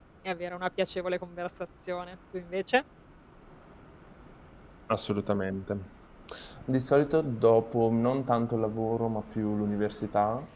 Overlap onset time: none

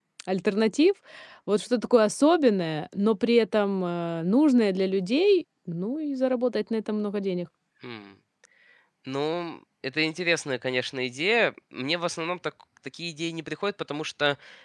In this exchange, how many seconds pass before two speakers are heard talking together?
none

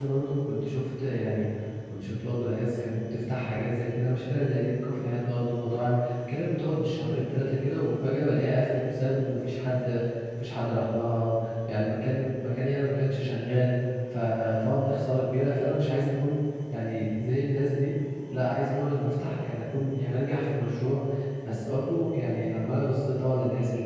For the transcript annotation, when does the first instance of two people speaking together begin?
none

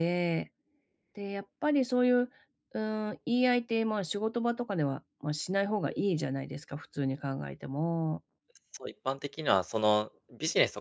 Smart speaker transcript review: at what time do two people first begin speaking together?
none

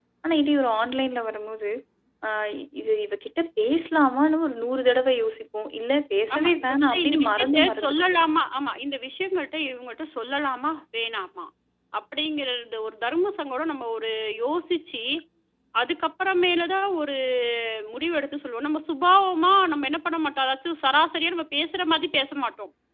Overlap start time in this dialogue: 6.3 s

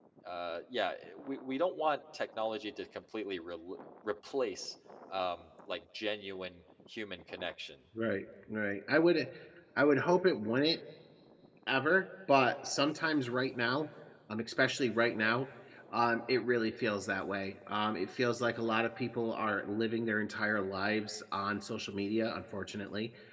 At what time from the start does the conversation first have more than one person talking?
none

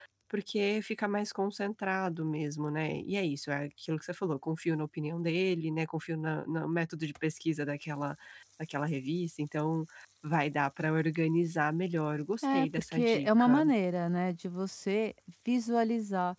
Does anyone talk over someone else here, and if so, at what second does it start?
12.4 s

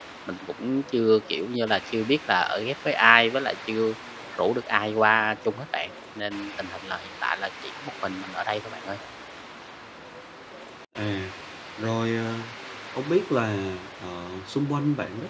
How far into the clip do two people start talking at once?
none

